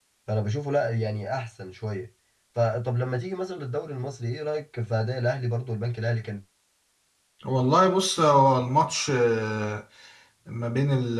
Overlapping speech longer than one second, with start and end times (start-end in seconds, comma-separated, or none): none